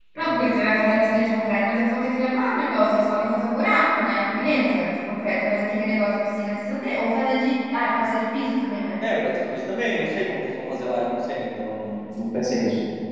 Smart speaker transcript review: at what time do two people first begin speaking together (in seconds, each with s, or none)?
none